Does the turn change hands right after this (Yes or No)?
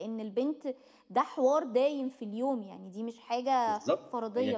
Yes